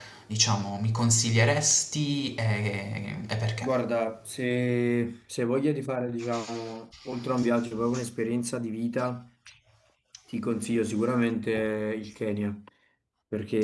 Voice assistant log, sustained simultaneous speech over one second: none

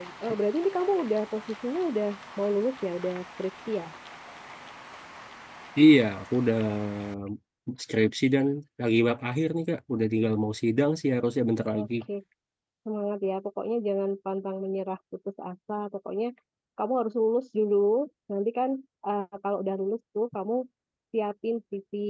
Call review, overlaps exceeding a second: none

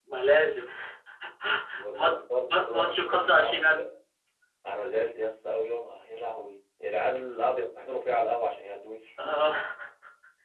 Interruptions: present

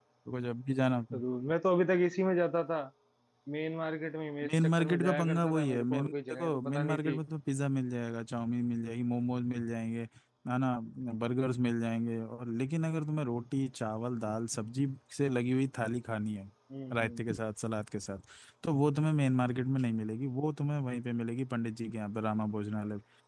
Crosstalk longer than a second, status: present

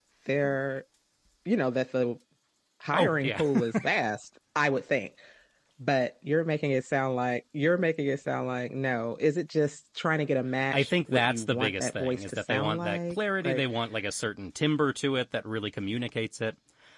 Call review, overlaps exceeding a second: present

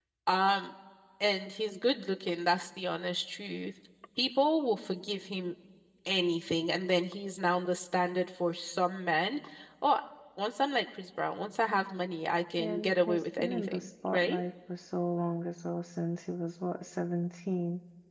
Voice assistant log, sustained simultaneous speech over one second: present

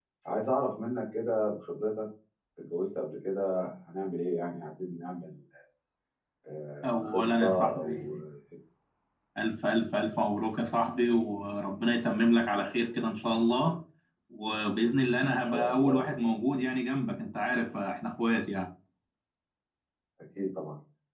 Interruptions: present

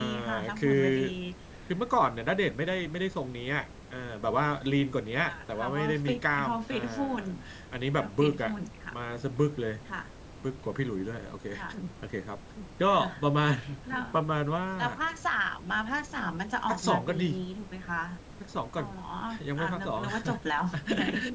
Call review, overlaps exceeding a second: present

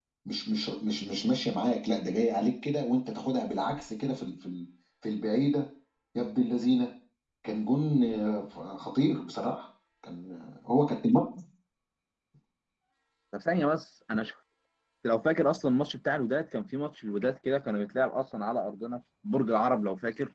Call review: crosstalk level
none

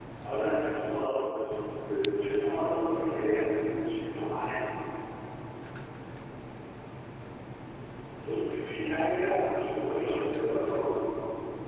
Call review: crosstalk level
present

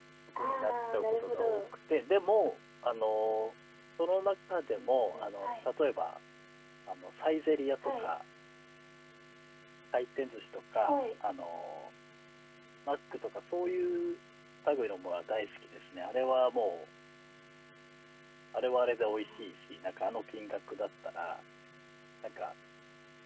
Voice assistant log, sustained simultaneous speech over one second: present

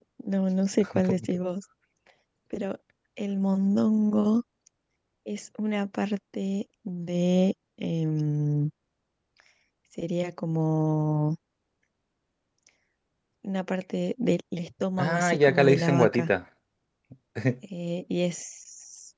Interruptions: present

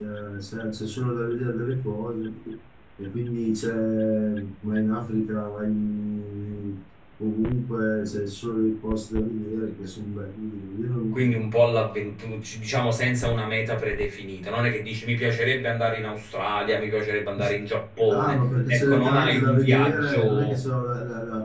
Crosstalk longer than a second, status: present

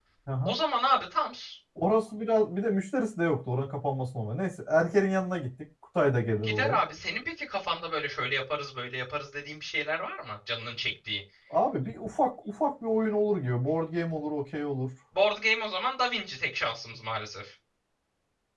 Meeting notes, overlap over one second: none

